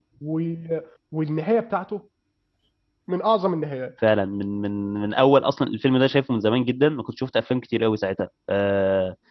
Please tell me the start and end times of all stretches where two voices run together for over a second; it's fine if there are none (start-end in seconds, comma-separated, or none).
none